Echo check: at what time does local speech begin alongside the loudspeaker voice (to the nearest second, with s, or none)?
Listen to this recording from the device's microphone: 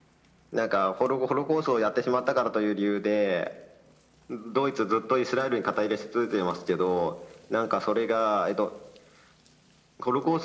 none